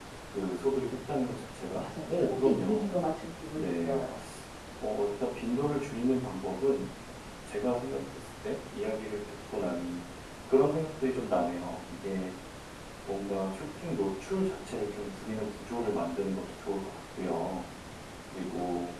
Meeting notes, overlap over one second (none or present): present